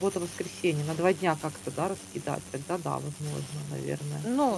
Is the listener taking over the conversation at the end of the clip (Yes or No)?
Yes